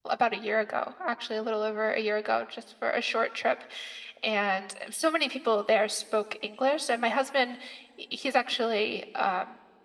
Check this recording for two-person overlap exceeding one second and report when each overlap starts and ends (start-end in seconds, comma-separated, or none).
none